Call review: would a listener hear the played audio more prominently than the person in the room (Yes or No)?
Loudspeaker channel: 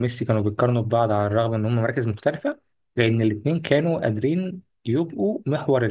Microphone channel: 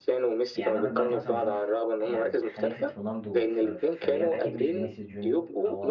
Yes